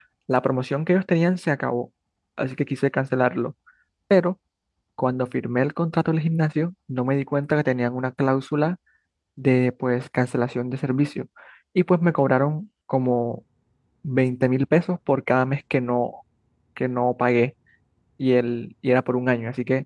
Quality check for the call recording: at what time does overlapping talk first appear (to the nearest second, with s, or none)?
none